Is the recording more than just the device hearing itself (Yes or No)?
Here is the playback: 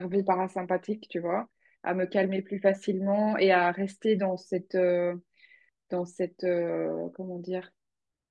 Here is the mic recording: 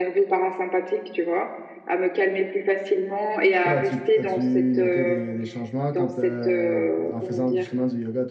Yes